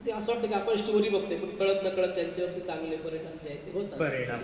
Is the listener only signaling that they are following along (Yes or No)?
No